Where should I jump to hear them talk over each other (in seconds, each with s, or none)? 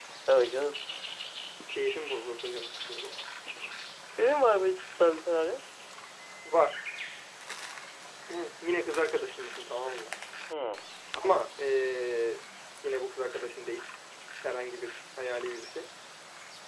none